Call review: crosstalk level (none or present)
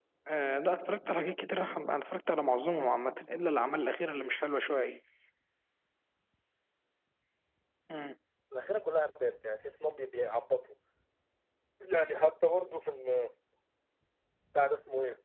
none